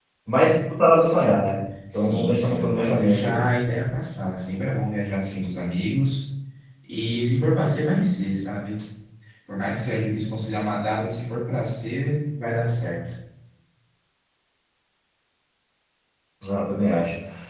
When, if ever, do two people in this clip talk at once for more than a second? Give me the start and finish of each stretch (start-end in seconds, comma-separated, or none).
1.9-3.5